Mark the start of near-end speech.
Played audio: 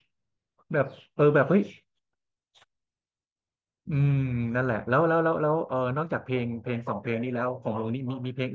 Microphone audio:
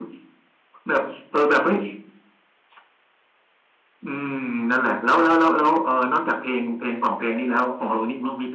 none

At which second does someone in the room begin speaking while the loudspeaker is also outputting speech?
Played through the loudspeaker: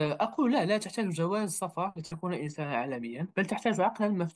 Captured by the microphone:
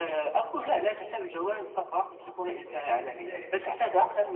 2.7 s

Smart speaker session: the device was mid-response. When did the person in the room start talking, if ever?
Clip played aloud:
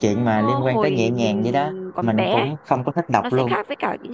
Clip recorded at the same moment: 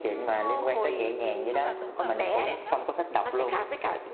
1.5 s

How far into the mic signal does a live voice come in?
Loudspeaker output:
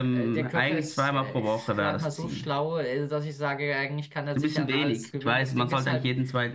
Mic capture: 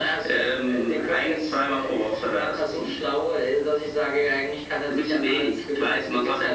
none

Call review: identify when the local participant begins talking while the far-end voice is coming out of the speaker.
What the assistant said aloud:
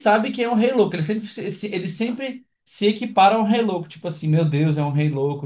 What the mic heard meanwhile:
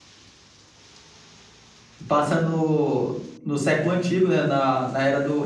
2.1 s

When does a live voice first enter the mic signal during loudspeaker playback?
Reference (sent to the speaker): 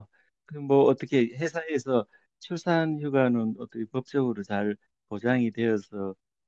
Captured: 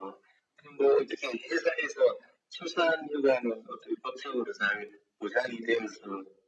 none

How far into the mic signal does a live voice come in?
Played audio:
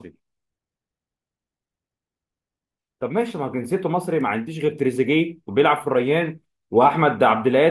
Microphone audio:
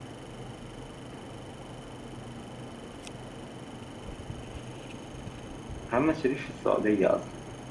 5.9 s

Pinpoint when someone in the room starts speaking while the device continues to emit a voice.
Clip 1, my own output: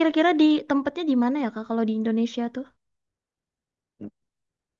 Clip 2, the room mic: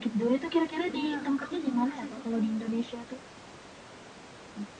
0.9 s

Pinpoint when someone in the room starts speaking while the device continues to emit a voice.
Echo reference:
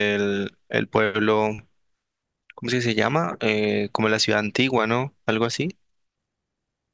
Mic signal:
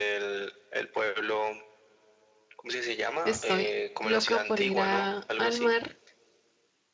3.2 s

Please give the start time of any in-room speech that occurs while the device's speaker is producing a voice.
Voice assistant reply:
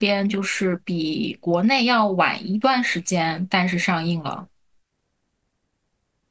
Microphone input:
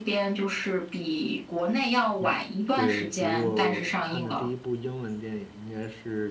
2.2 s

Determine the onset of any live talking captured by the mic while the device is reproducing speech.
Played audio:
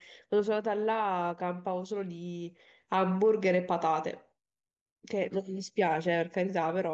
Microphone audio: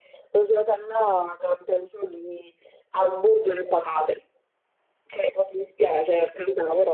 none

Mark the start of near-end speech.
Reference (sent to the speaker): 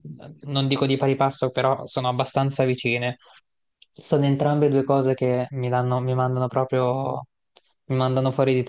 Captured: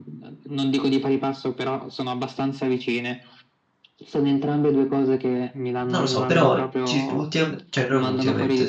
5.9 s

